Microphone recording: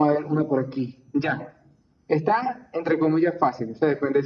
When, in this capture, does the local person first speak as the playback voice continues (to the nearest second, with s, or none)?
none